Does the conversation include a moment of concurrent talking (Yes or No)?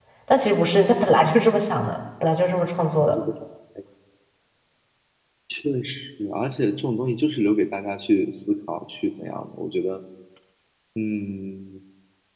No